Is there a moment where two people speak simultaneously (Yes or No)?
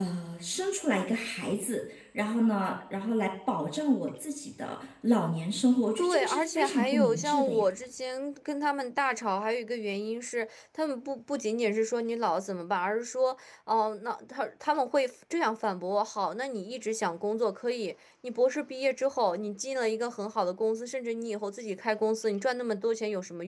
Yes